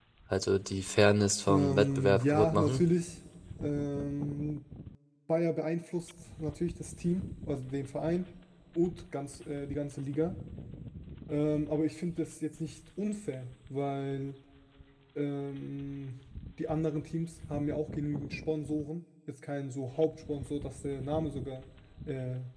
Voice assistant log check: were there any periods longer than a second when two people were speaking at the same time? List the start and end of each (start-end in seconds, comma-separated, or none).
1.5-2.8